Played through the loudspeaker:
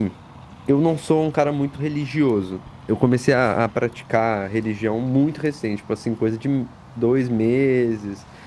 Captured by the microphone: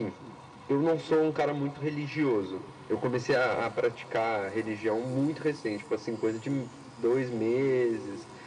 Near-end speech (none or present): none